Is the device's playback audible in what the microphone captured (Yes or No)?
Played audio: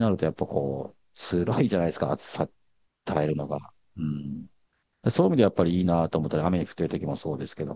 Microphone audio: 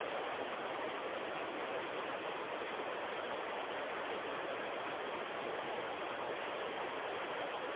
No